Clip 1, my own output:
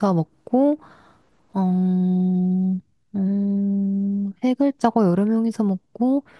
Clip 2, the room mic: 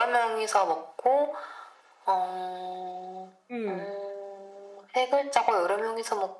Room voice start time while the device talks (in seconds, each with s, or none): 3.5 s